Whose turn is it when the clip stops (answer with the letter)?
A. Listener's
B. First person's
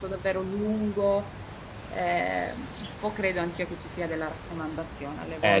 A